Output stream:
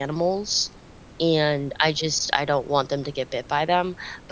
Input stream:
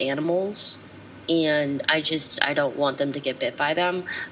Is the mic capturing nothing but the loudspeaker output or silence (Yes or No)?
Yes